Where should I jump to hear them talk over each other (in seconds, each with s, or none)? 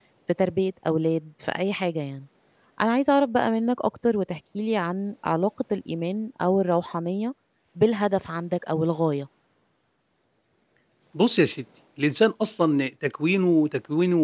none